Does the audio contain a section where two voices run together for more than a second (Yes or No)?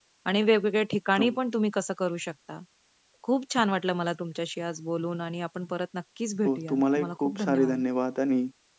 Yes